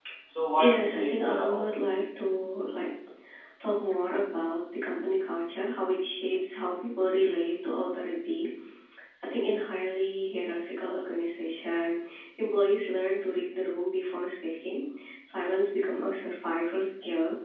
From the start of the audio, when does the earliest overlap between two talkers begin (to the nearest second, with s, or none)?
1 s